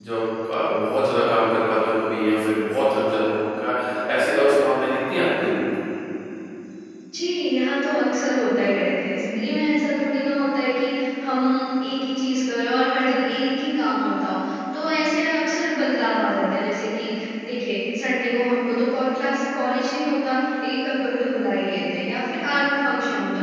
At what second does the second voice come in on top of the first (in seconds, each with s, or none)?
none